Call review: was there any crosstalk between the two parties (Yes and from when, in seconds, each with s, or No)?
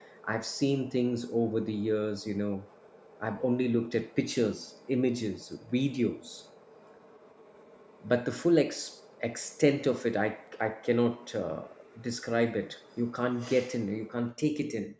No